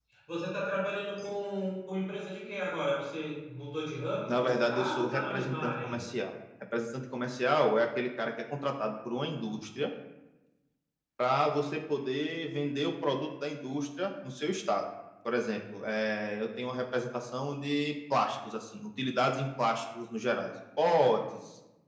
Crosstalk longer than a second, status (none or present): present